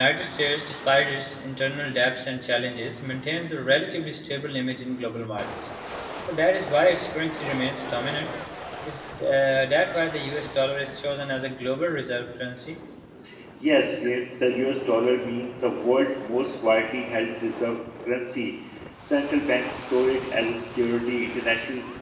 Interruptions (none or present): none